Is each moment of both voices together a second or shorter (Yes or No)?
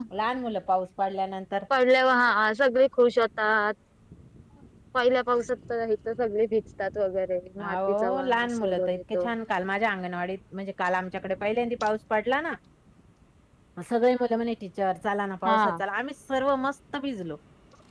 No